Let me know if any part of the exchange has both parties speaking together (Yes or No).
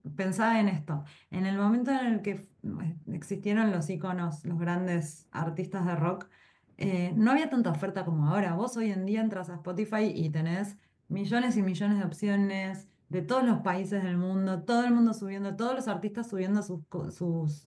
No